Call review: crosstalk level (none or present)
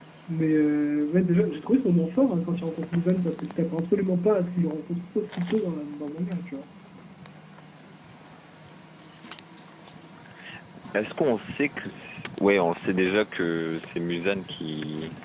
none